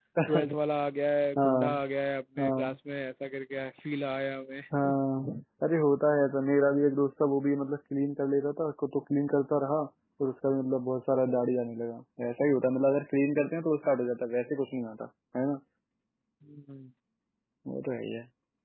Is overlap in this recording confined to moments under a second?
Yes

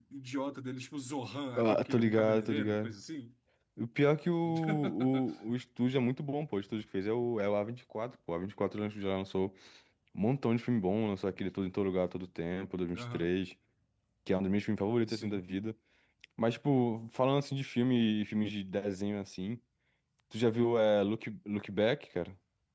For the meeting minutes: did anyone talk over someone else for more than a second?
Yes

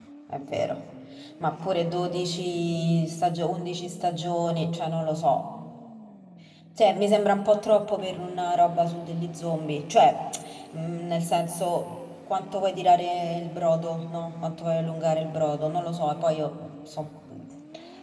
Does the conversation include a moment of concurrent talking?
No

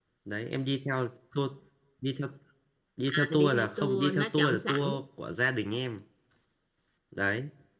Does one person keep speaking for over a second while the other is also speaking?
Yes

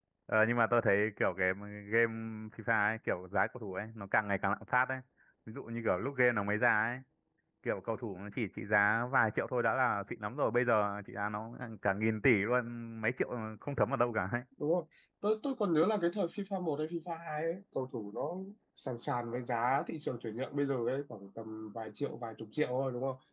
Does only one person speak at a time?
Yes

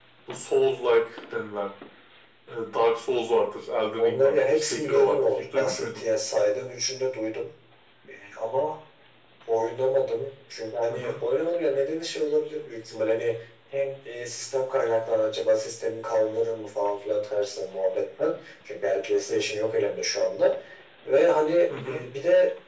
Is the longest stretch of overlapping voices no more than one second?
No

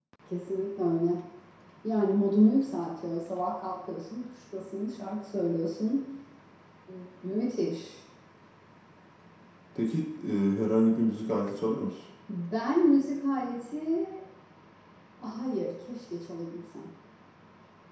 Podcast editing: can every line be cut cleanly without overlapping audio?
Yes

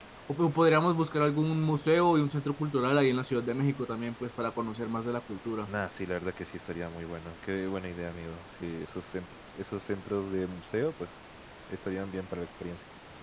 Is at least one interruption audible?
No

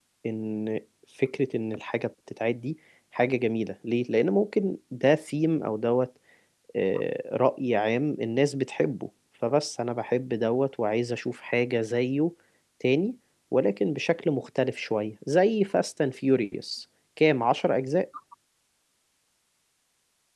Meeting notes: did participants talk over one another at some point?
No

